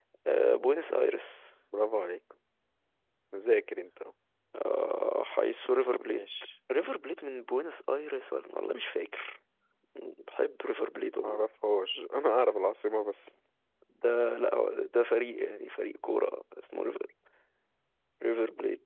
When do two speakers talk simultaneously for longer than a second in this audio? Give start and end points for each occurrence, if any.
none

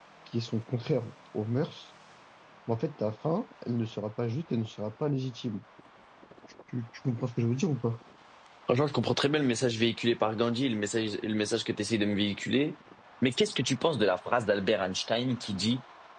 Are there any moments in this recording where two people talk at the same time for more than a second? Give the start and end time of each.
none

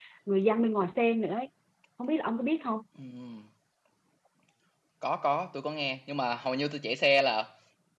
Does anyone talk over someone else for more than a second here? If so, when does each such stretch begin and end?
none

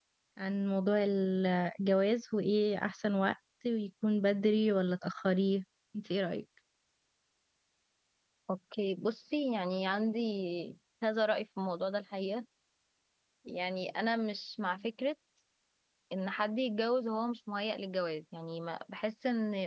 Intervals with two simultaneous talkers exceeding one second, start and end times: none

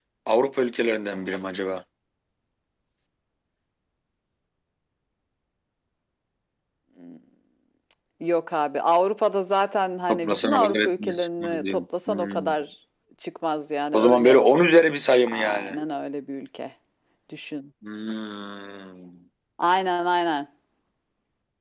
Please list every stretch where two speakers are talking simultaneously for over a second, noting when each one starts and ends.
10.1-12.6

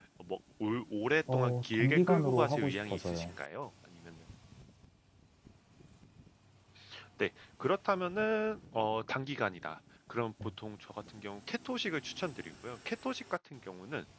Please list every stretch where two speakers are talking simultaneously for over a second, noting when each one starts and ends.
1.3-3.4

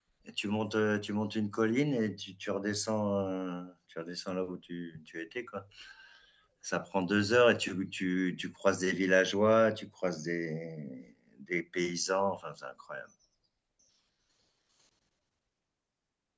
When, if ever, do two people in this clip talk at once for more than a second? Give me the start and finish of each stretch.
none

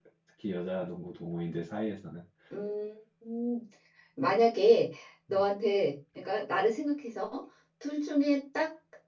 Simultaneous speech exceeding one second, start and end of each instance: none

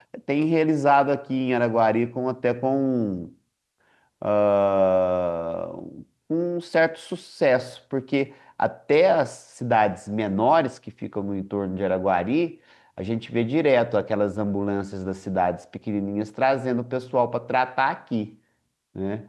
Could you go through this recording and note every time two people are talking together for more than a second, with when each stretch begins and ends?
none

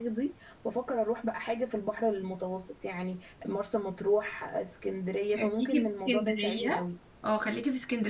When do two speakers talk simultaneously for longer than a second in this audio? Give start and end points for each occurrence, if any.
5.3-6.8

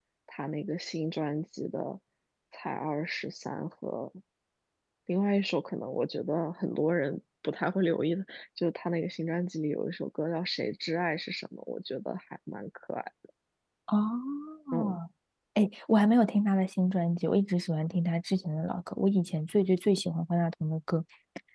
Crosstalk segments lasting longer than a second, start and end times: none

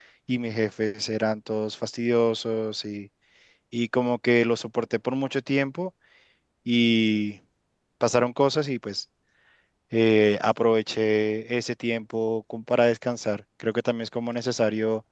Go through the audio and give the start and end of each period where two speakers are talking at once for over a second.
none

